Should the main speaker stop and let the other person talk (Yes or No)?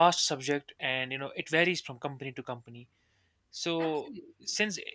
No